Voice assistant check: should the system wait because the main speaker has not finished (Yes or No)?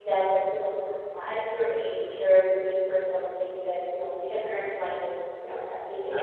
Yes